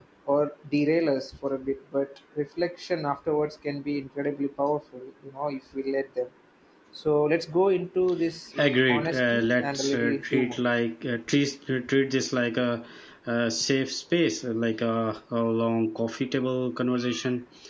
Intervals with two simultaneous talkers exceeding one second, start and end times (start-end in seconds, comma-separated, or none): 8.6-10.6